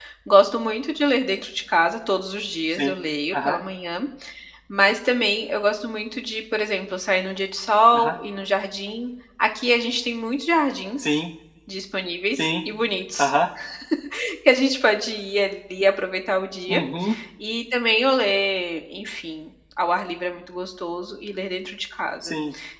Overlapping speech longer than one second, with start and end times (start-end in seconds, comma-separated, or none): none